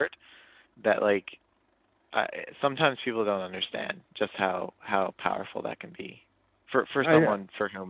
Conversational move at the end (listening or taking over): listening